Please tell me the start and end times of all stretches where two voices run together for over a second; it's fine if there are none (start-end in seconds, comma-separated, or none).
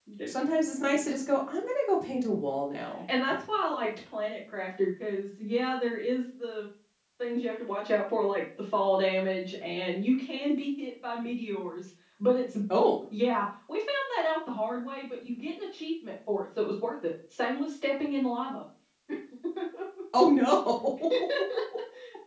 none